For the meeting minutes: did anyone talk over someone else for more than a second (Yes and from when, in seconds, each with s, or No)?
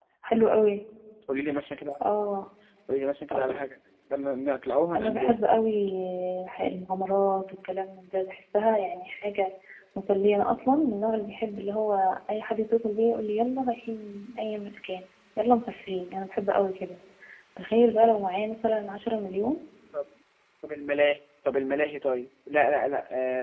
No